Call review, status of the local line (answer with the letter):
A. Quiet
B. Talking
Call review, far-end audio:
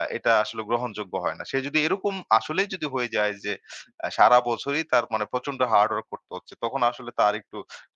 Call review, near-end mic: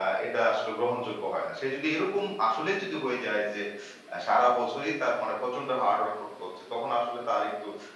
A